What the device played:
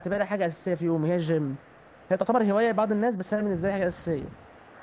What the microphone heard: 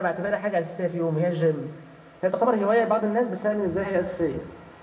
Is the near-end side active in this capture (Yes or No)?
No